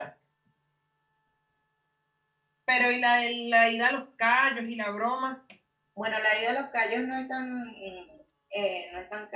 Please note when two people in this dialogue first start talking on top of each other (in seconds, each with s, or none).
none